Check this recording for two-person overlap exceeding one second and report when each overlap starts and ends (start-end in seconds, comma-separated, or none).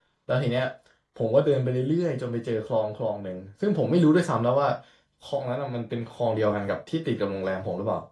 none